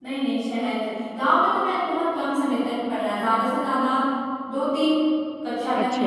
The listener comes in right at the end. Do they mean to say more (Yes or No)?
No